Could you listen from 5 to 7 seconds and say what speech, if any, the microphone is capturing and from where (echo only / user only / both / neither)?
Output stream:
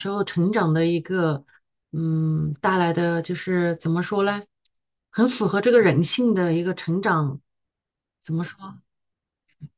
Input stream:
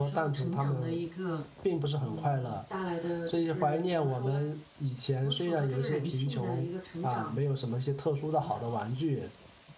both